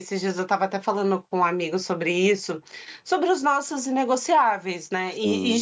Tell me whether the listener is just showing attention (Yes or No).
Yes